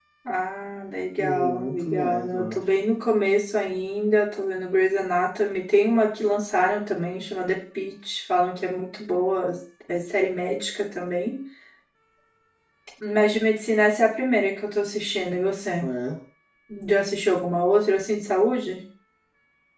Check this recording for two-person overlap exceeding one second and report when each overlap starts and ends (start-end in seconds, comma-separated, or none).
1.2-2.6